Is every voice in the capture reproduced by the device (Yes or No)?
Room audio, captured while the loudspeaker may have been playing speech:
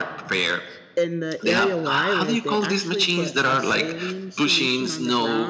No